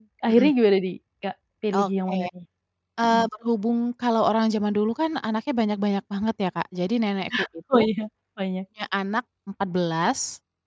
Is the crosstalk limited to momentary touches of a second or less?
Yes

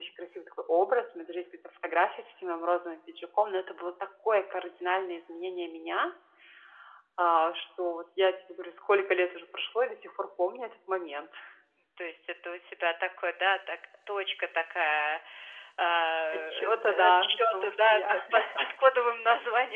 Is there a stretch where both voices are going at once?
Yes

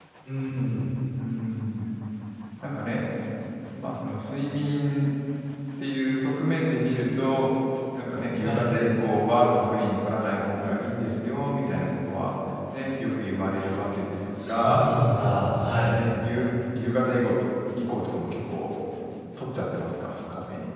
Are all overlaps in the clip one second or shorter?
Yes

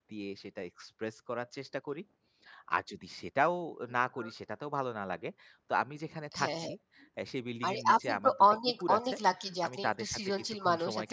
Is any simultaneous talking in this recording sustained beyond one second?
Yes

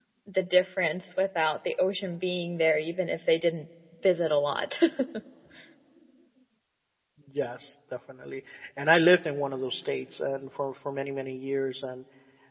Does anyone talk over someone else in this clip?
No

